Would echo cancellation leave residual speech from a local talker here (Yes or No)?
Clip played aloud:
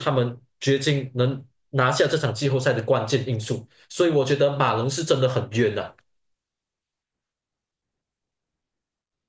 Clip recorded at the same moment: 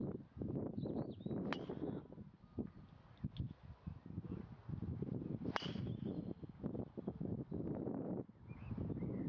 No